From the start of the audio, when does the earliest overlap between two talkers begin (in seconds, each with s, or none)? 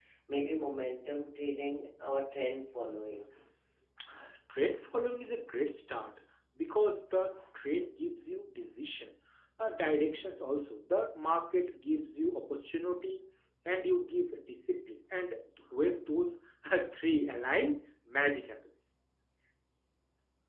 none